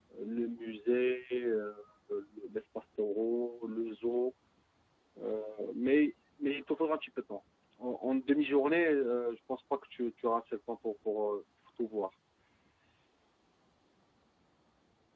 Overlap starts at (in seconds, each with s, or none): none